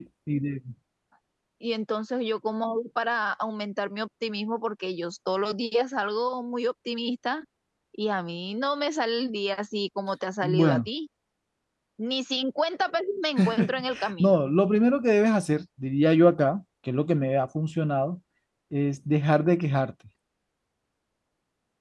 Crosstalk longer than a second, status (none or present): none